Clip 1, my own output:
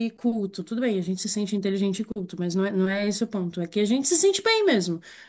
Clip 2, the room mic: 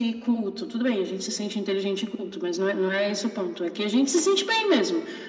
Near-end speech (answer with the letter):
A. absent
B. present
A